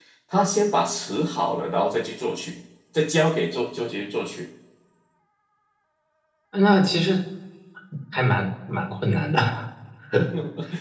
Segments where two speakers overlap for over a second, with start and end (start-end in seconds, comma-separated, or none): none